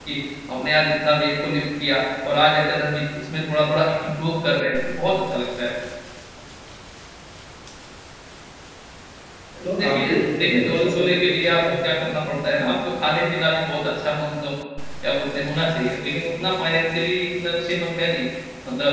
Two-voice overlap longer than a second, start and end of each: 9.8-11.8

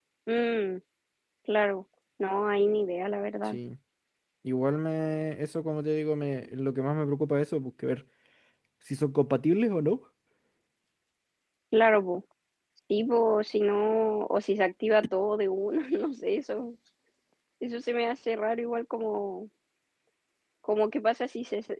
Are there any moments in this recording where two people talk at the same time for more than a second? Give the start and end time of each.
none

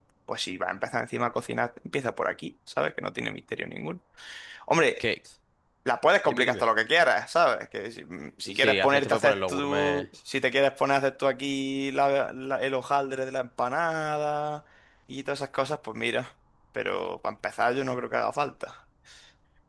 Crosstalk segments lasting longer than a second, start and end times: 8.6-10.1

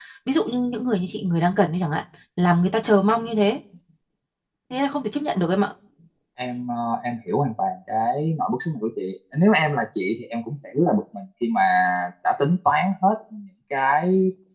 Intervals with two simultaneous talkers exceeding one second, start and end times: none

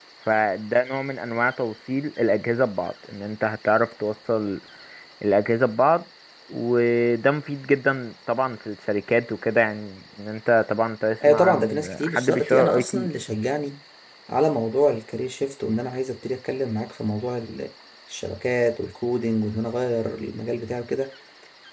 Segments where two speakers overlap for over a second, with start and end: 11.3-13.1

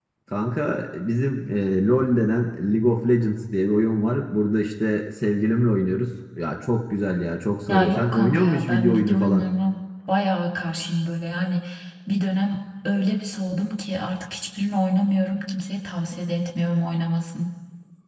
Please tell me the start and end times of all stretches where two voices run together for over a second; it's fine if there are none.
7.7-9.5

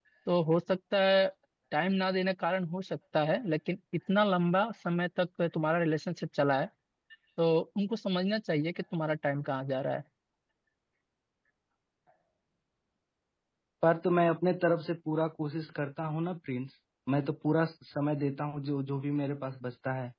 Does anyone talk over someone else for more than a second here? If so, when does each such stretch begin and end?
none

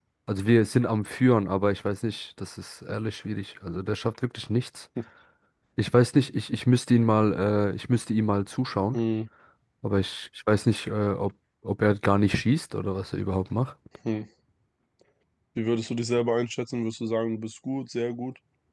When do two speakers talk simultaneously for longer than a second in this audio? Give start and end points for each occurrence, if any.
none

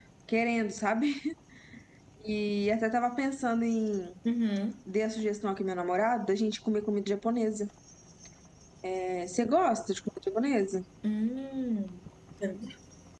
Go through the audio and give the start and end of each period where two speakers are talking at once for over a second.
none

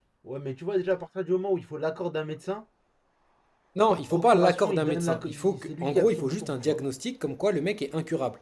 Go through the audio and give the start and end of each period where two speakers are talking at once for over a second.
3.9-6.8

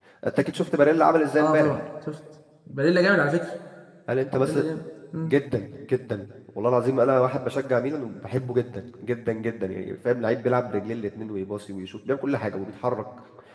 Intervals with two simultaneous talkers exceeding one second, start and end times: none

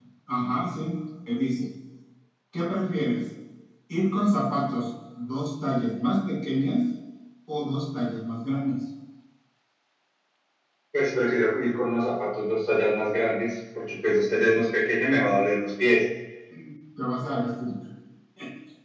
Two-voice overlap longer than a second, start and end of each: none

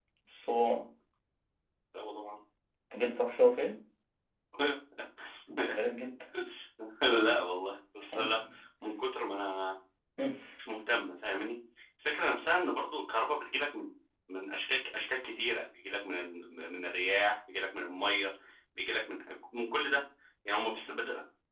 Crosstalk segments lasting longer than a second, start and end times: none

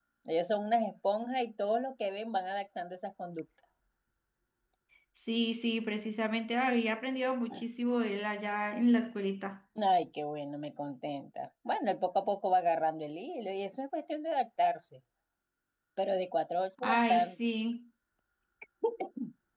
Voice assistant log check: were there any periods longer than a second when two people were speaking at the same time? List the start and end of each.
none

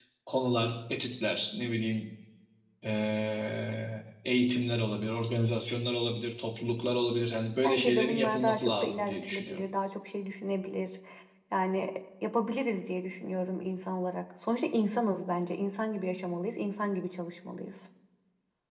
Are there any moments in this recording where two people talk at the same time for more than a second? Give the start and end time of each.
7.6-9.7

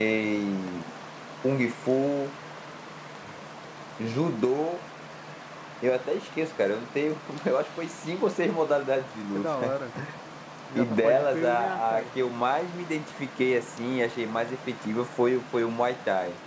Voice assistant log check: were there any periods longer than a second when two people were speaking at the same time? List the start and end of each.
10.8-12.0

